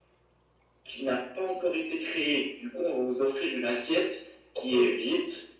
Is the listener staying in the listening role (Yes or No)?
Yes